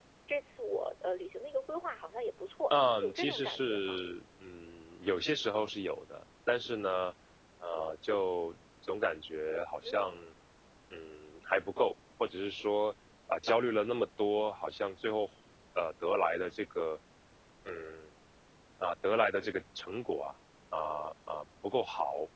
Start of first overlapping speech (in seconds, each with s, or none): 2.7 s